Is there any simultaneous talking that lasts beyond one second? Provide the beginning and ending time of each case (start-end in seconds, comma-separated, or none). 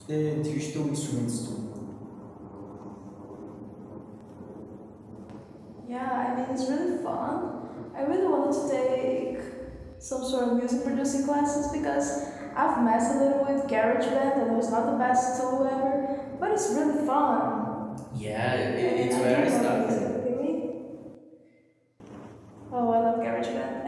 18.8-20.1